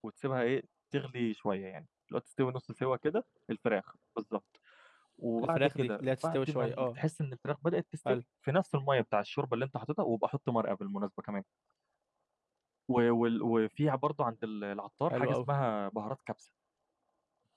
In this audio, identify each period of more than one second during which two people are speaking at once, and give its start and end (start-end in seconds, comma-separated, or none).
5.4-7.0